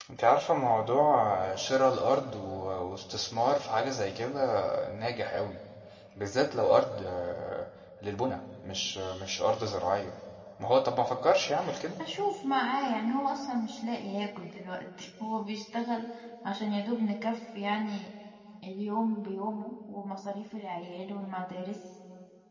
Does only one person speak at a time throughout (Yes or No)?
Yes